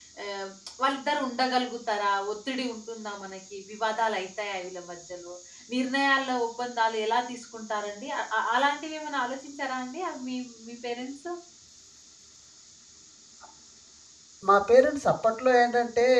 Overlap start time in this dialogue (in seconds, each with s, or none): none